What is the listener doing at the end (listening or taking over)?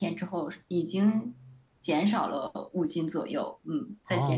taking over